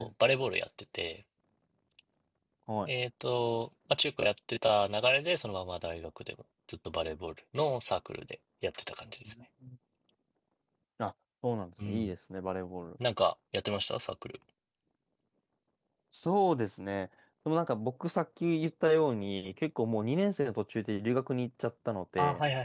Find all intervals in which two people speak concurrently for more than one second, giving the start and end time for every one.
none

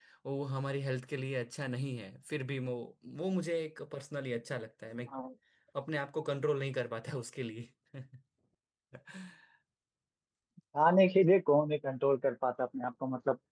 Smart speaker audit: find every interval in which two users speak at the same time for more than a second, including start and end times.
none

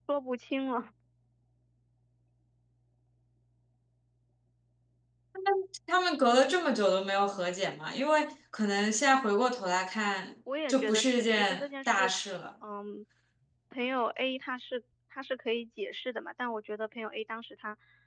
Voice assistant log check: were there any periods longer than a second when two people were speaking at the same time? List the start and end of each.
10.7-12.1

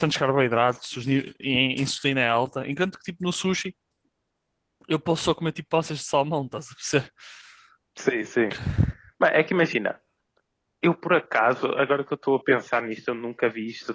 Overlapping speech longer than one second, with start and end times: none

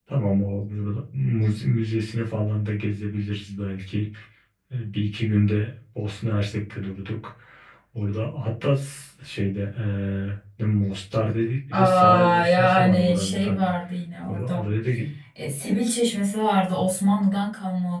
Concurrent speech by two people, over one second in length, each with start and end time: 11.7-13.7

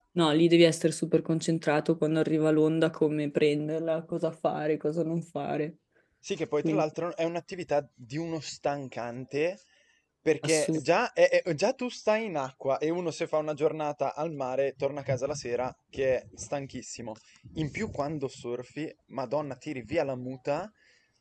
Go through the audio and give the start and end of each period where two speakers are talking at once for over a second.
none

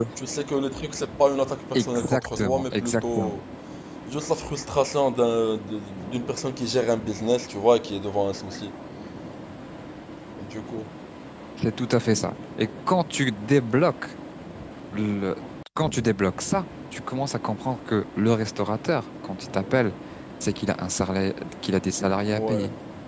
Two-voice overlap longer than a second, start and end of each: 1.7-3.4

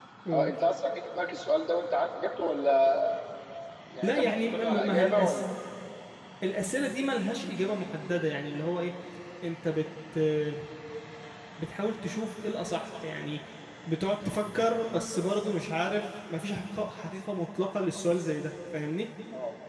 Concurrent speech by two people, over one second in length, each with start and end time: 4.0-5.4

